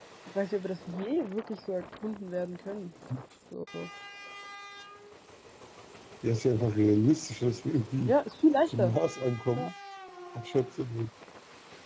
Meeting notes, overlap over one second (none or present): none